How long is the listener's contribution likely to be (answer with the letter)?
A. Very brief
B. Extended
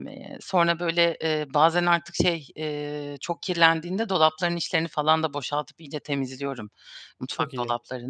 A